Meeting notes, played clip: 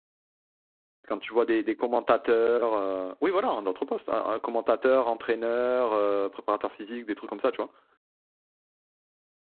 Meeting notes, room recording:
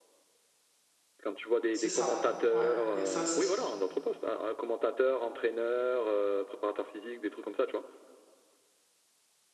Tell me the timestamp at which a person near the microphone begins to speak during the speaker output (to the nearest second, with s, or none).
2 s